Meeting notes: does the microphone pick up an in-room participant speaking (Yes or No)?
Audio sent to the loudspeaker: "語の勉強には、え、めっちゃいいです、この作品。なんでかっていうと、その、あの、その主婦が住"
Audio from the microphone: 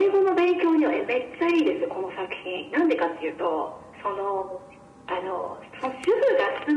No